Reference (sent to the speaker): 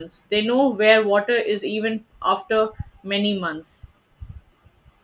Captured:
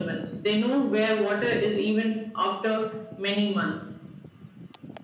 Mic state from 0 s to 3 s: echo only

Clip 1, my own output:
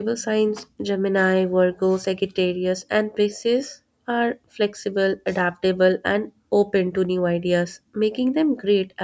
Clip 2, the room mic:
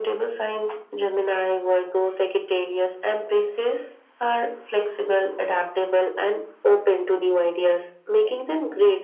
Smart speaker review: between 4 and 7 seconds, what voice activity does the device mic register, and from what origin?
echo only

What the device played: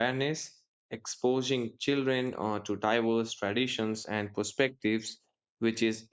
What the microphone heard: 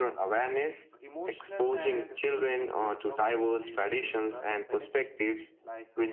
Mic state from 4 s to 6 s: both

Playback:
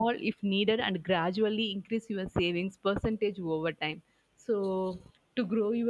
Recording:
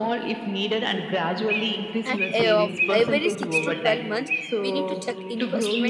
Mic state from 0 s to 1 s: echo only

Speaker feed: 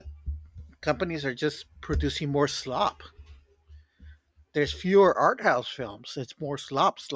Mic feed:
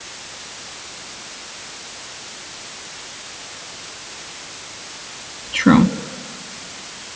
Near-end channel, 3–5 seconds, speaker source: neither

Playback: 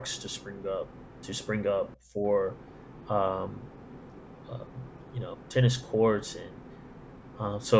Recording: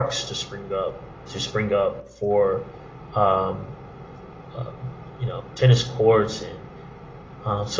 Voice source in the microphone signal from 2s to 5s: echo only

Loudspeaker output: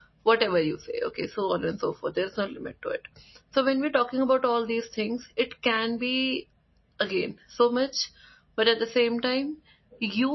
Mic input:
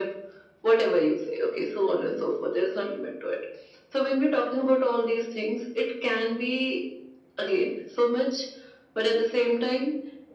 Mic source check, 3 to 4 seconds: echo only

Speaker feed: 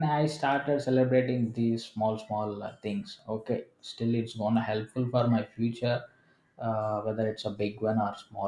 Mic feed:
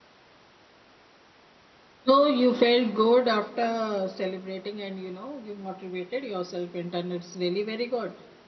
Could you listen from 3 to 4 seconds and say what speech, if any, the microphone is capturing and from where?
user only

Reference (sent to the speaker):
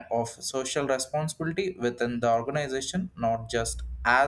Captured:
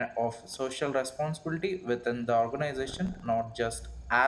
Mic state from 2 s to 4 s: echo only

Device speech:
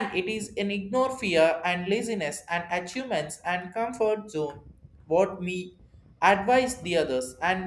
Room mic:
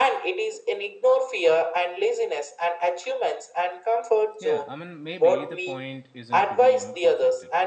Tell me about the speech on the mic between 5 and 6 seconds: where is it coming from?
both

